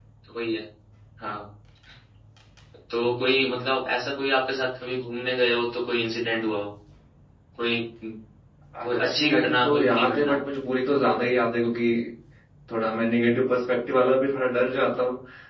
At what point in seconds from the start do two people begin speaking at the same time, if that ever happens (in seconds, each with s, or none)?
8.8 s